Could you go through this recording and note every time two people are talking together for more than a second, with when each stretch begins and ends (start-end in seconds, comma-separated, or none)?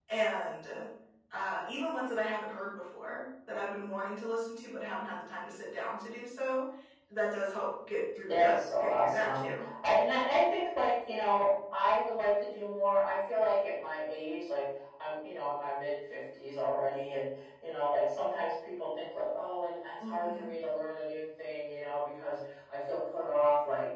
8.3-9.7